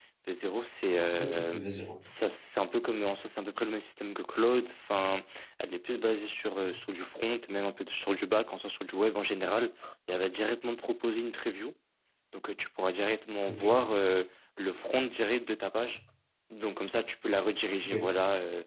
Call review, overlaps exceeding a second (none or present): none